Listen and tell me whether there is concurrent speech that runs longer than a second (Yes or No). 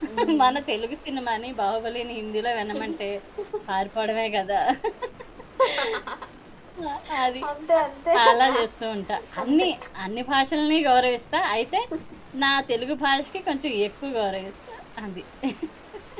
No